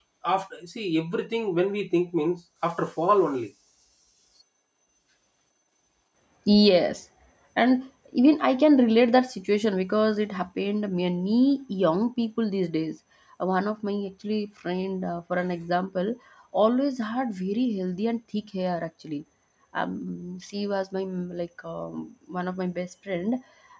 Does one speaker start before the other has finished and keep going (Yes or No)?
No